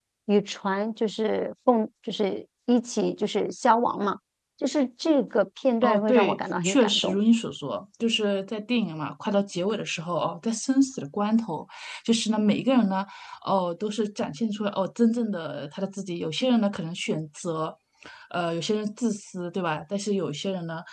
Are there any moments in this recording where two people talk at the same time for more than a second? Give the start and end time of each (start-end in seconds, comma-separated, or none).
5.8-7.2